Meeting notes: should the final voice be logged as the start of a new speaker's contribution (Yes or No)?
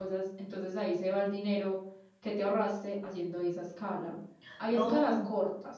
No